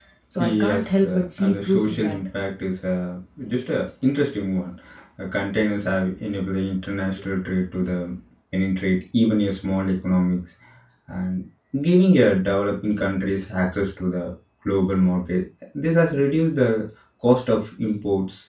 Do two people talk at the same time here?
Yes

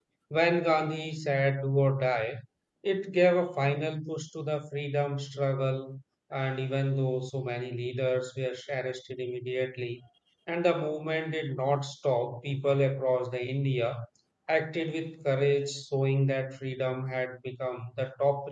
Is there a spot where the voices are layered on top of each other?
No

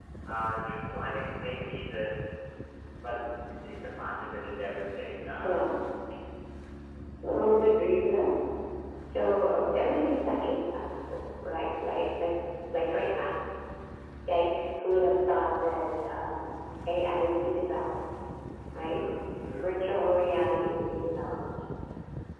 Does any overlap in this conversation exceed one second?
No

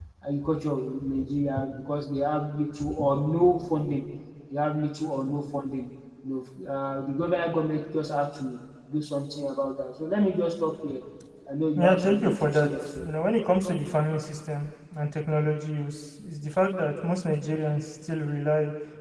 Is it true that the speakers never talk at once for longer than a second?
No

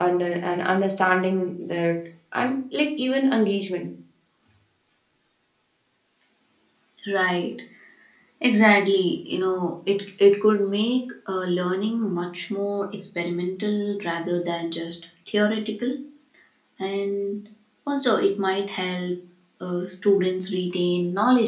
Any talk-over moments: No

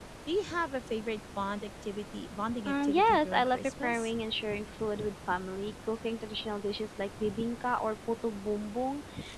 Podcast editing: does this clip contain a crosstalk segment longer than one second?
Yes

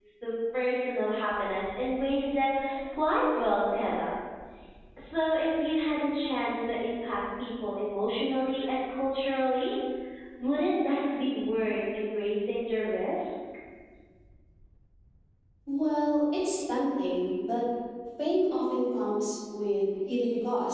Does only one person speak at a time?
Yes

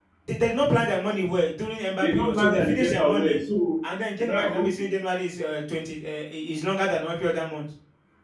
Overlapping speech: Yes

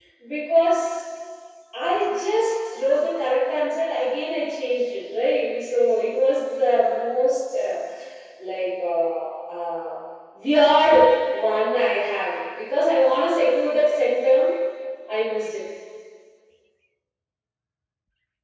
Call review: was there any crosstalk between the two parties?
No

